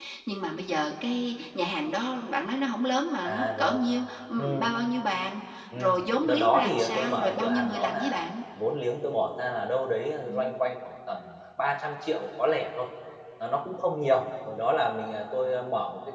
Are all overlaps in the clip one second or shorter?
No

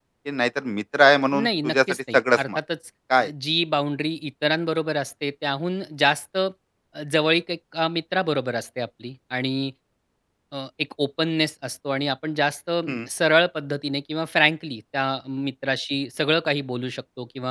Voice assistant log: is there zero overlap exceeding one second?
No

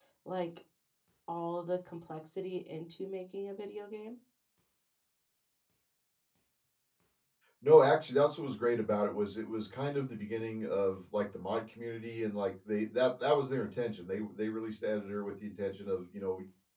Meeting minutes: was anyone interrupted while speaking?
No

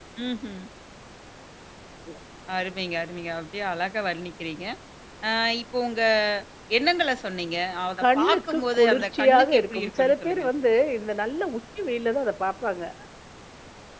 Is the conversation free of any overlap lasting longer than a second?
No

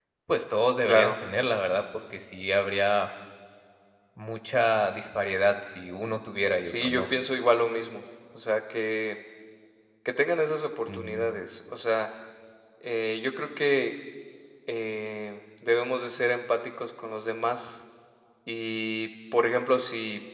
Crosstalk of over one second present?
No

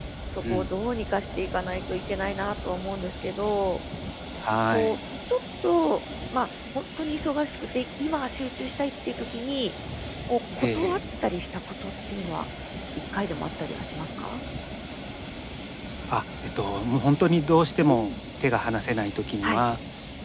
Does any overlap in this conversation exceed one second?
No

